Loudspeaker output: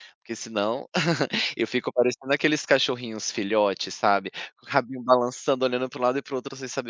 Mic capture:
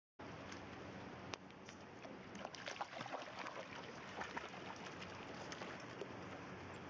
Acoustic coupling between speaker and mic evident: No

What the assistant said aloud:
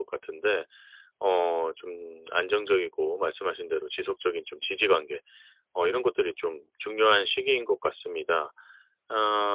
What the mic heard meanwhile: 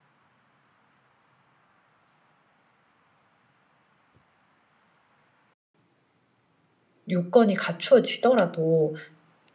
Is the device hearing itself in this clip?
No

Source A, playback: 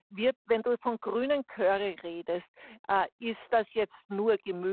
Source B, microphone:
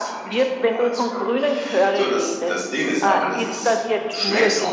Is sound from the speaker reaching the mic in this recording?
Yes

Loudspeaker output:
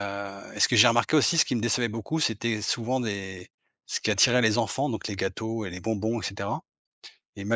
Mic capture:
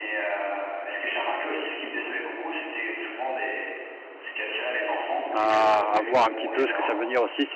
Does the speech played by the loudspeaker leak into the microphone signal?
Yes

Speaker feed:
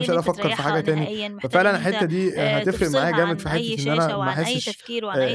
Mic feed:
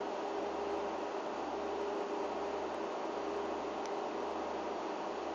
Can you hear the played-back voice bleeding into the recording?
No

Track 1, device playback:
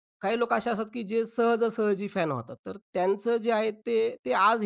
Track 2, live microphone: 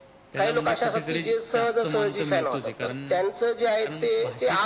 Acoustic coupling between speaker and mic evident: Yes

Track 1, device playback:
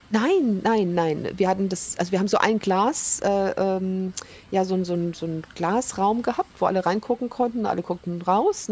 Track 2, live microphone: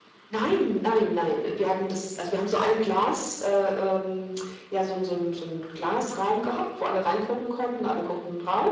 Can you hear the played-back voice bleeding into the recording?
Yes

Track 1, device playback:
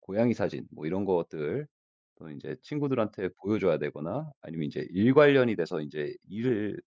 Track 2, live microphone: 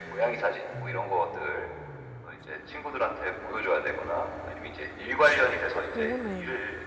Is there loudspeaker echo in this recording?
Yes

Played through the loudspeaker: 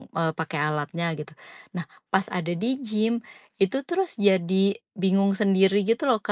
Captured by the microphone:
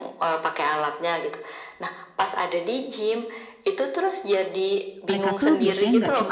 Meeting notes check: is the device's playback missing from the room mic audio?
No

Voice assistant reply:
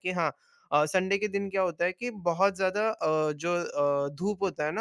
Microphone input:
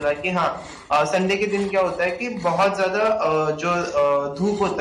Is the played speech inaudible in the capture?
No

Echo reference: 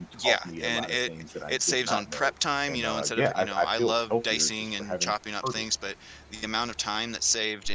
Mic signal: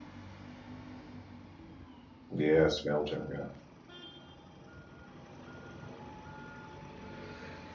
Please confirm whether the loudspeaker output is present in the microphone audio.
No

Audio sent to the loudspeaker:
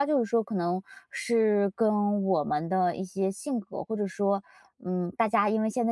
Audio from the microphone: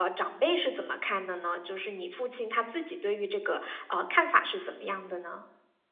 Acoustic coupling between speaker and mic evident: No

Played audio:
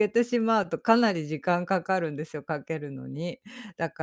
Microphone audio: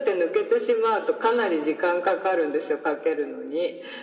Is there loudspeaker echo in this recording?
Yes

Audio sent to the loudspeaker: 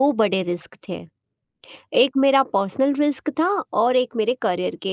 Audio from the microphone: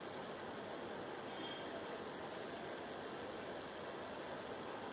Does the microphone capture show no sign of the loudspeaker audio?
Yes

